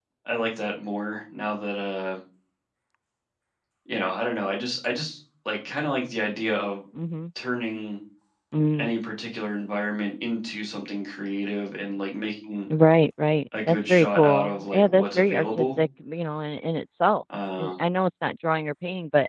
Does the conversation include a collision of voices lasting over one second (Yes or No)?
Yes